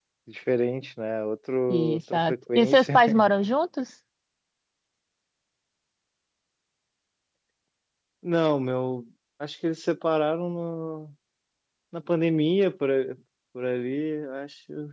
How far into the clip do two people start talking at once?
1.7 s

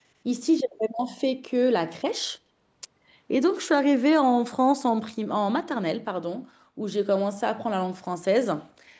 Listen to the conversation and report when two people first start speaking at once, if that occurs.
none

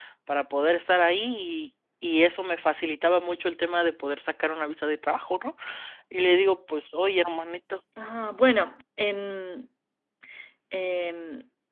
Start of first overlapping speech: none

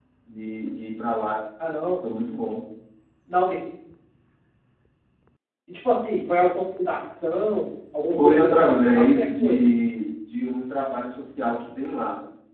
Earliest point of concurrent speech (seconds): 8.1 s

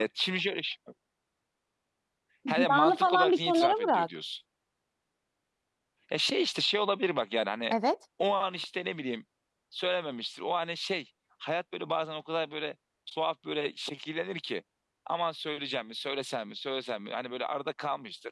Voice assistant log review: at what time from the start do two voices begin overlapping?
2.5 s

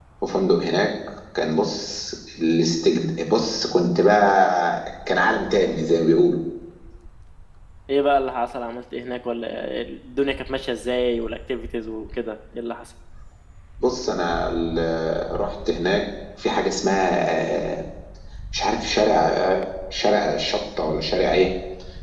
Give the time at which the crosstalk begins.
none

